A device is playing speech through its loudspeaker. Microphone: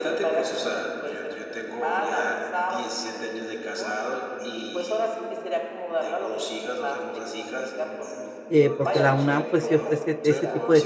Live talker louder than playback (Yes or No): Yes